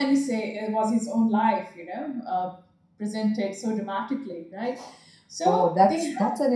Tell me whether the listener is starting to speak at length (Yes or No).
Yes